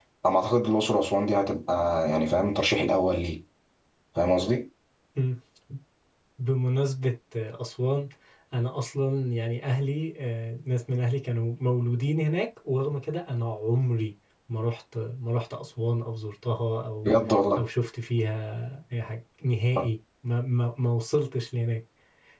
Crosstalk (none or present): none